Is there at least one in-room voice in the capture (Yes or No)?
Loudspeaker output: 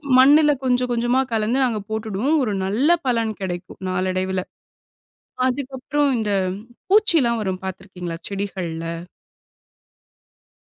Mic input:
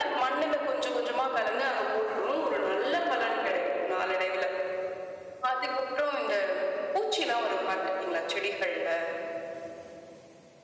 No